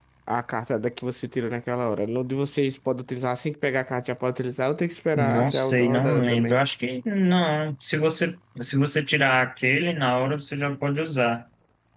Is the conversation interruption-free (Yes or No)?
No